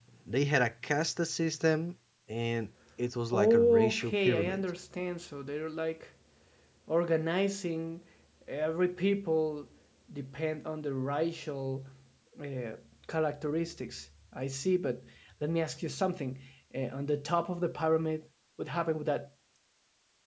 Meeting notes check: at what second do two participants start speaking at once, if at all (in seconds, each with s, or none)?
3.3 s